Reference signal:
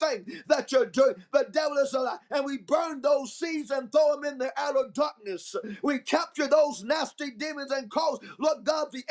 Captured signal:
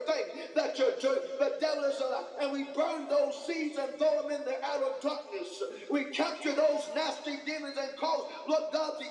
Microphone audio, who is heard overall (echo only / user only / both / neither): echo only